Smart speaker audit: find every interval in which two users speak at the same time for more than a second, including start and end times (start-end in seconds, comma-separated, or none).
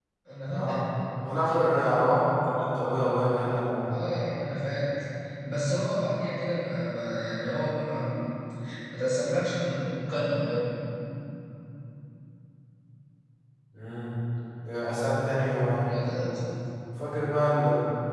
none